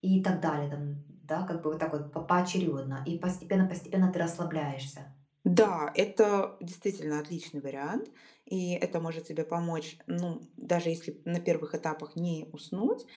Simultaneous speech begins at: none

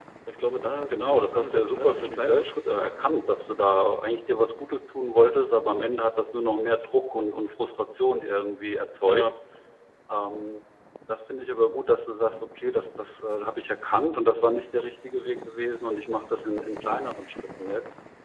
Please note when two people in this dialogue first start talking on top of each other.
0.9 s

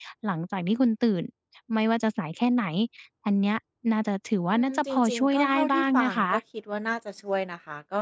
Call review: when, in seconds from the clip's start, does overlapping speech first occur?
4.5 s

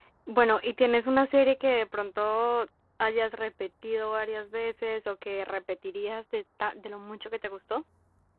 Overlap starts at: none

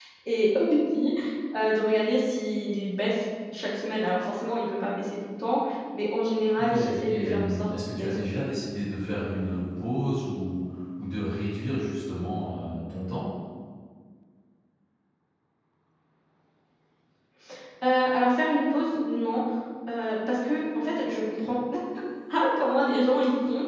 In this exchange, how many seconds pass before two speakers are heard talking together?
6.6 s

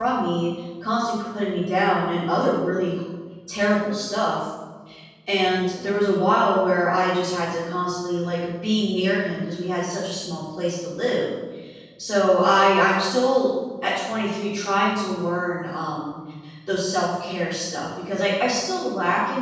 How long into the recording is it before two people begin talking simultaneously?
none

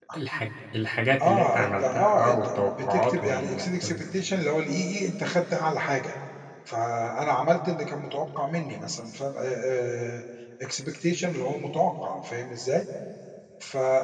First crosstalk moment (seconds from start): 1.2 s

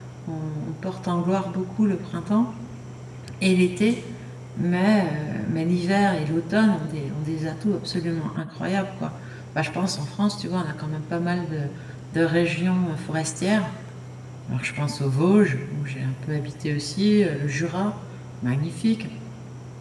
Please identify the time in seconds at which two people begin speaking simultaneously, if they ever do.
none

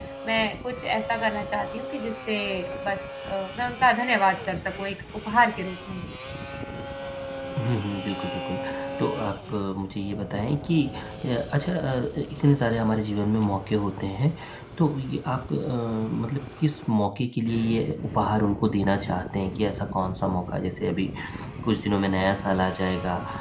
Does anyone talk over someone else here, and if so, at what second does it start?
none

